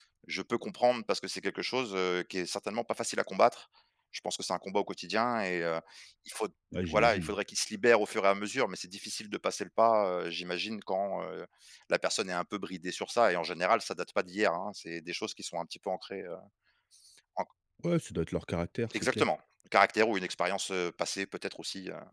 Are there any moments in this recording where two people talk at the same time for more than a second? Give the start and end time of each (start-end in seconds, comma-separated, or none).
none